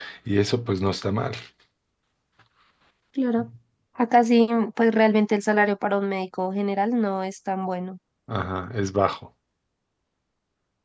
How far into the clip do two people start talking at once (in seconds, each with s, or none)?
none